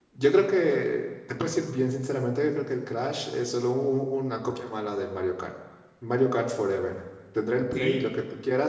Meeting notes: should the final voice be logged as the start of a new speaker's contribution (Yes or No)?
No